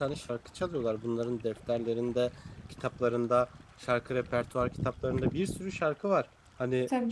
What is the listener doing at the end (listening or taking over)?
listening